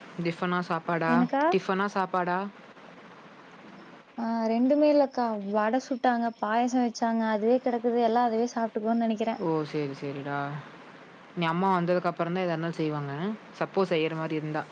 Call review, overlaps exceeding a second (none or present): none